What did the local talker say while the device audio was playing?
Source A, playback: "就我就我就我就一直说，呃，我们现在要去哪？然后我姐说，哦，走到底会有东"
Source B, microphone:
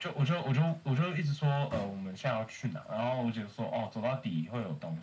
none

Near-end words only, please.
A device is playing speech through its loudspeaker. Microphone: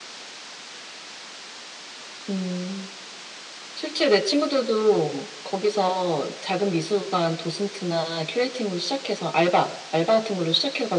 none

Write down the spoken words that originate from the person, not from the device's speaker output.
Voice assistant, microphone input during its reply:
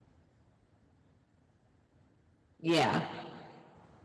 Yeah.

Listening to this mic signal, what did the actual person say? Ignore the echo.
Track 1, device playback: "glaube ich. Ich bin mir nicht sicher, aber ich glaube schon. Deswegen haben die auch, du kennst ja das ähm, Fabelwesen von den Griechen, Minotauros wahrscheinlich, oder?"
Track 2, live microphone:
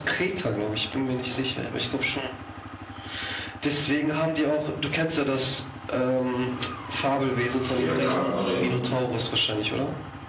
Stierkampf-Arena.

